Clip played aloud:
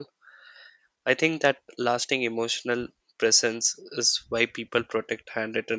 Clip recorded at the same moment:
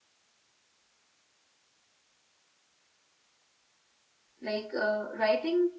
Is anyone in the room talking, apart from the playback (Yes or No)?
Yes